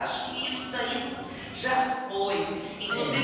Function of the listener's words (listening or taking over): listening